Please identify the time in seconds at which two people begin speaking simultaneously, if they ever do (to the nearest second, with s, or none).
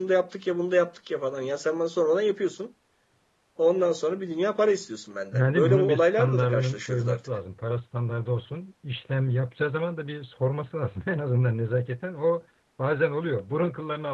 5 s